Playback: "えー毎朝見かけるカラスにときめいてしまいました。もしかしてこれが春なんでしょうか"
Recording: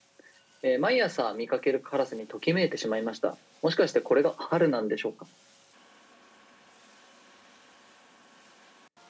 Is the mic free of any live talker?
Yes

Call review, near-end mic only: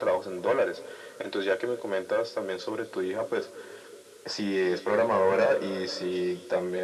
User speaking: No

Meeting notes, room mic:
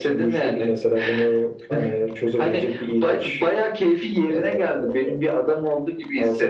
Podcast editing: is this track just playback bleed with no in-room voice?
Yes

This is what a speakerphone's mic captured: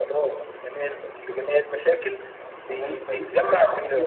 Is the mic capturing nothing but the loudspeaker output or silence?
No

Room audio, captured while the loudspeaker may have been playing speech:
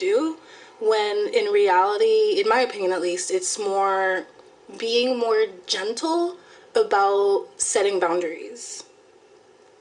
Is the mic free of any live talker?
Yes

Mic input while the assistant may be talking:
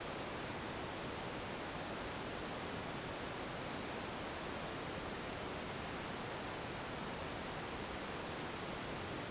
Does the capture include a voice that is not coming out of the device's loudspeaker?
No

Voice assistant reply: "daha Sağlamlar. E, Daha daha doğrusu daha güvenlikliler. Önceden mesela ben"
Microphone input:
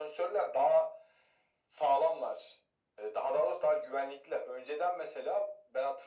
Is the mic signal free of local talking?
Yes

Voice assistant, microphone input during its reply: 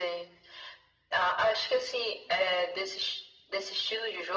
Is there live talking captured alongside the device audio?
No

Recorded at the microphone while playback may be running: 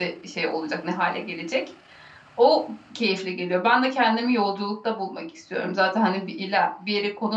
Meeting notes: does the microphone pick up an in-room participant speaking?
Yes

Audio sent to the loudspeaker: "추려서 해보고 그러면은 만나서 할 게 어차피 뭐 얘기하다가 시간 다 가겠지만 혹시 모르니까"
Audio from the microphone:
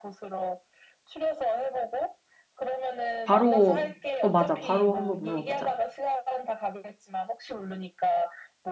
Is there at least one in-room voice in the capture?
Yes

